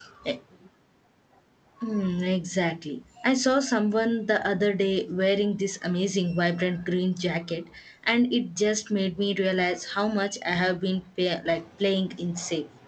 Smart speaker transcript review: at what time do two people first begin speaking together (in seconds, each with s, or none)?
none